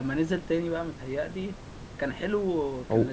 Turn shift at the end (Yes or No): No